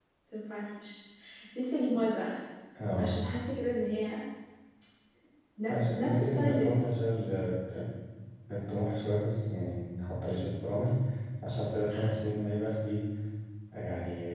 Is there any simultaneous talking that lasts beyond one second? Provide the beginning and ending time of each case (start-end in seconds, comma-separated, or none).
5.7-6.9